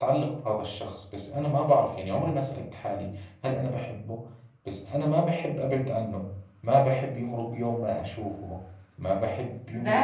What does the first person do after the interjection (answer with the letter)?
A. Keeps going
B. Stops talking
B